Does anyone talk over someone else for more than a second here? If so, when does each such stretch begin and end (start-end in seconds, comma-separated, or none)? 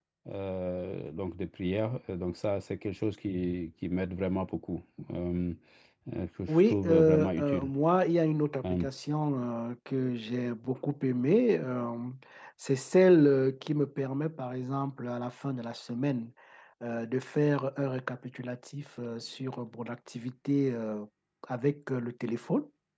6.5-7.7